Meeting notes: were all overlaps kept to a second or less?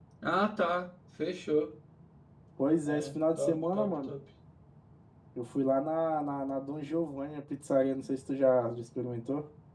No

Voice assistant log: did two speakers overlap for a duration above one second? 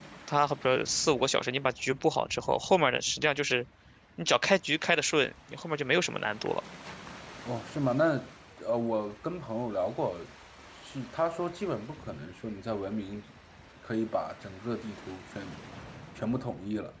No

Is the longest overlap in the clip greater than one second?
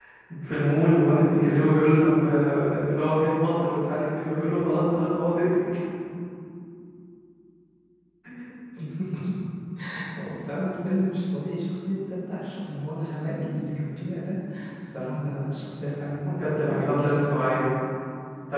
Yes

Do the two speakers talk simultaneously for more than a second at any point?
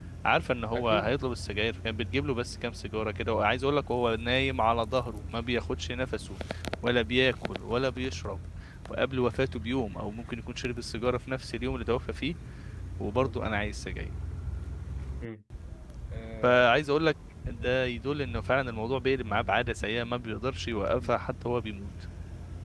No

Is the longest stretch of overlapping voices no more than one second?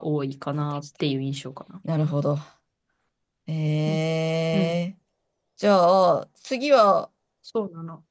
Yes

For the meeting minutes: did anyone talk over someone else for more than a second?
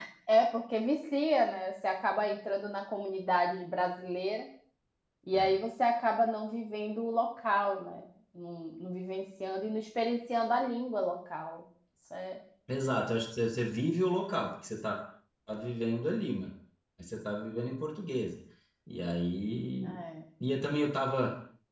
No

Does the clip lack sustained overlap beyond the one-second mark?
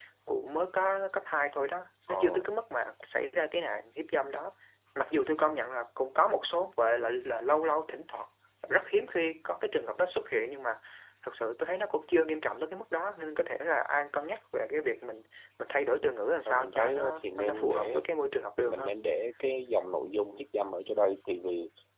No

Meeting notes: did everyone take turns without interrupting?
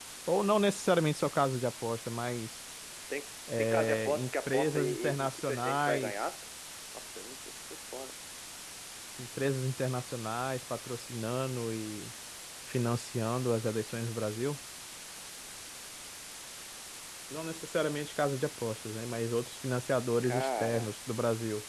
No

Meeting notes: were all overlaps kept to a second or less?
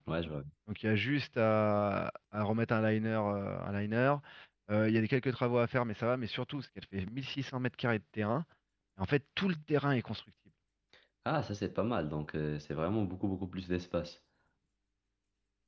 Yes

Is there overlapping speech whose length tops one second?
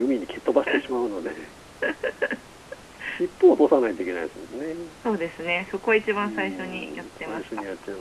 Yes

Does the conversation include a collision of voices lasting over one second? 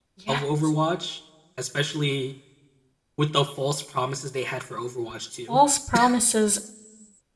No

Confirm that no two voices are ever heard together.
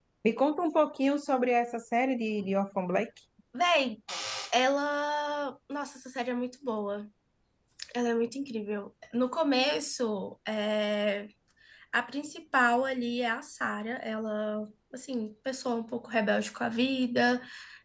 Yes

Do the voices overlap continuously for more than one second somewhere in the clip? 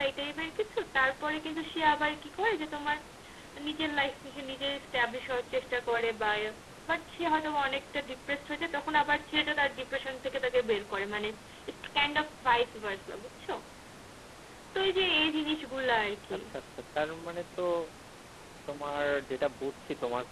No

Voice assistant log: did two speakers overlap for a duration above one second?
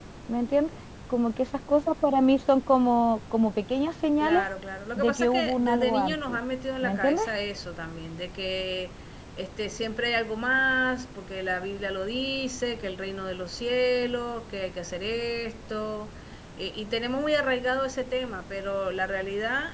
Yes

